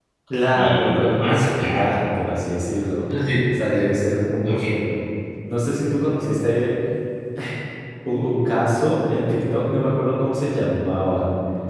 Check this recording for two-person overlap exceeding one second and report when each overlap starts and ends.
0.5-1.9

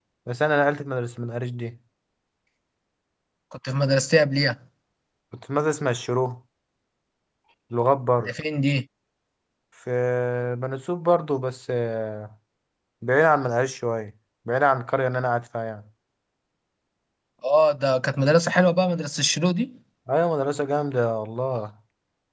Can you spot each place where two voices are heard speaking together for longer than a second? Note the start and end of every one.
none

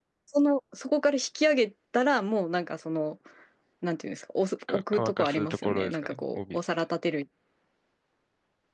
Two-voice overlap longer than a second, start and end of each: 4.7-6.6

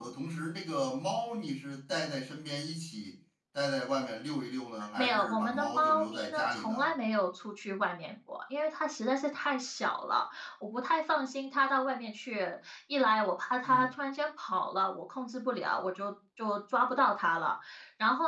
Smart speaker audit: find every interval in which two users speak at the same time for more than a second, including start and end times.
5.0-6.9

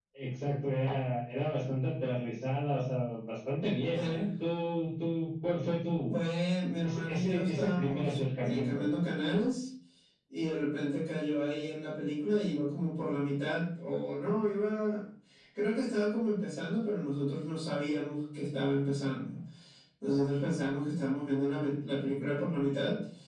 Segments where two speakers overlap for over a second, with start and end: 6.8-8.8

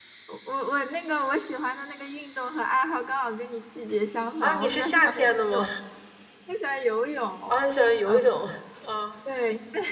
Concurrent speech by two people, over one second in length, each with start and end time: 4.4-5.7

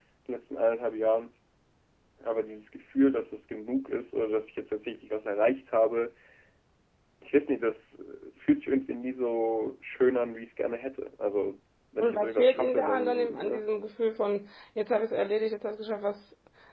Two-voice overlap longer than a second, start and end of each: 12.0-13.7

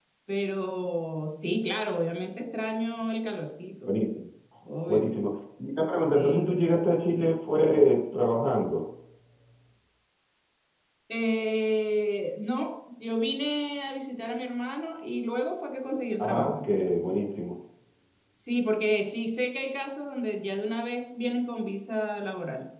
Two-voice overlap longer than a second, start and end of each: none

